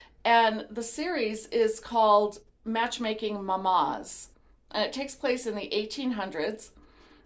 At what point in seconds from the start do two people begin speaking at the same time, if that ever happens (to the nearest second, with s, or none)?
none